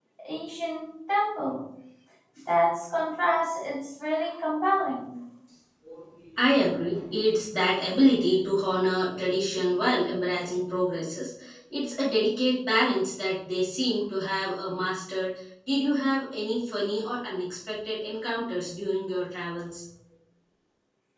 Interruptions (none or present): none